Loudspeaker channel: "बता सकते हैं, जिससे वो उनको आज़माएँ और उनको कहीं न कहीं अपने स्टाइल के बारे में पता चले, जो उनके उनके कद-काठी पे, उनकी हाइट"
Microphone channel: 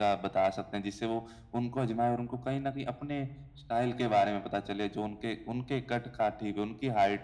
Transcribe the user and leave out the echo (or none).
none